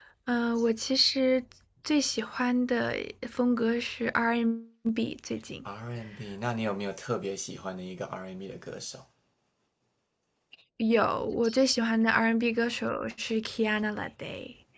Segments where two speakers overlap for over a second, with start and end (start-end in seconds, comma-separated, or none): none